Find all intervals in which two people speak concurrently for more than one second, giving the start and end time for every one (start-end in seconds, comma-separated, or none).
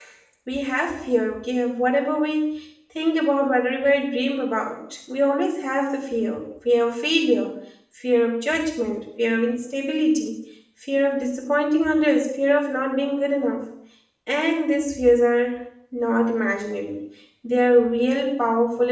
none